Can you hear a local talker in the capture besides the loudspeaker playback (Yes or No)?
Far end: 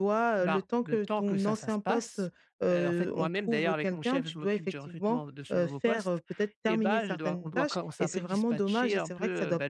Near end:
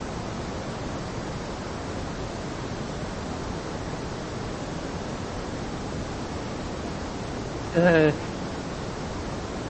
Yes